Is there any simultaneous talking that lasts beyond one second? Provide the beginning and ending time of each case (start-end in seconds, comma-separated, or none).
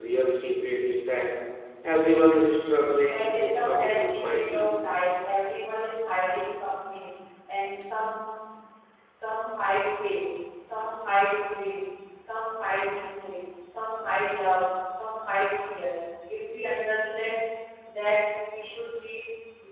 3.1-4.7